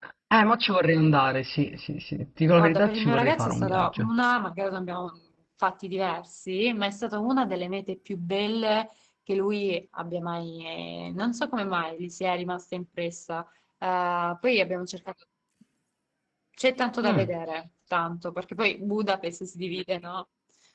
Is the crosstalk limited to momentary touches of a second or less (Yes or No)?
No